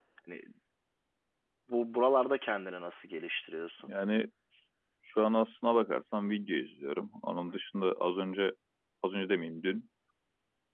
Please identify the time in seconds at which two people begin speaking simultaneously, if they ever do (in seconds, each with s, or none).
none